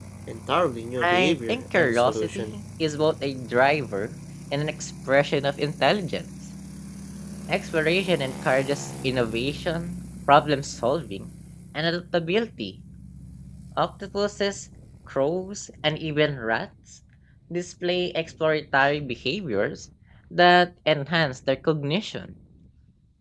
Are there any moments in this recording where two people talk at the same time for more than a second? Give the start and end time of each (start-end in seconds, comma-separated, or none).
1.0-2.5